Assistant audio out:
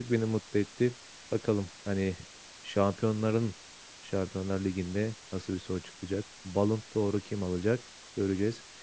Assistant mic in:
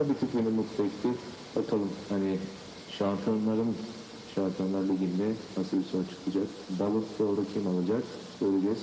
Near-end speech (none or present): none